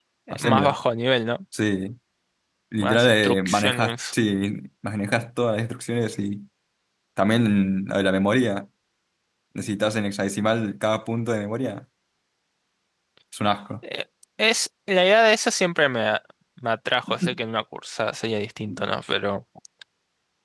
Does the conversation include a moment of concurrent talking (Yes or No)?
Yes